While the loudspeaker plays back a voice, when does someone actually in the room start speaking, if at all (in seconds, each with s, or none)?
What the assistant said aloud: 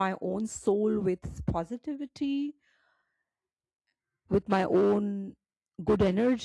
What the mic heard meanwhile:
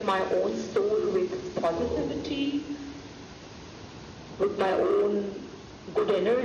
1.6 s